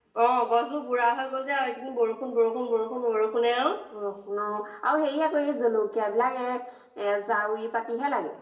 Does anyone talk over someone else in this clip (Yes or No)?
No